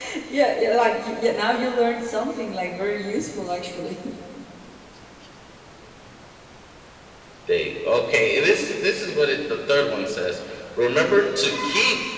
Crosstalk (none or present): none